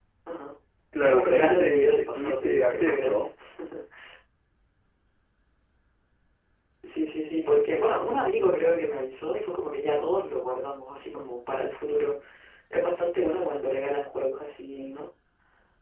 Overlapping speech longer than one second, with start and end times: 1.0-3.3

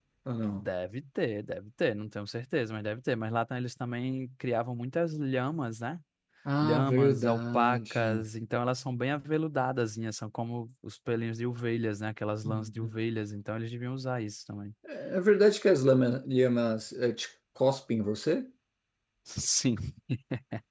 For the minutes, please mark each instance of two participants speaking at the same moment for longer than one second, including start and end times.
6.6-8.2

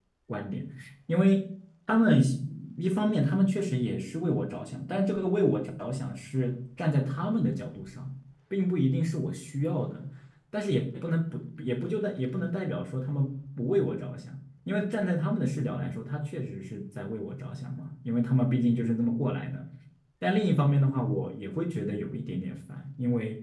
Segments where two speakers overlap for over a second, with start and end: none

